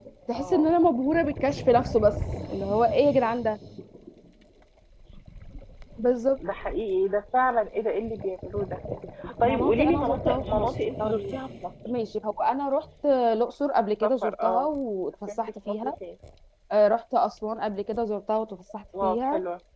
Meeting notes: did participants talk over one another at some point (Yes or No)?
Yes